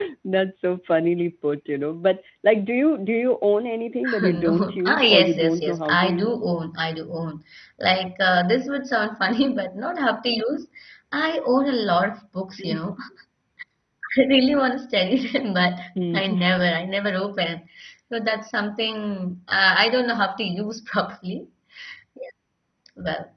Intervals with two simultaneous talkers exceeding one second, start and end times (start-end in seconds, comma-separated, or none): 4.2-6.5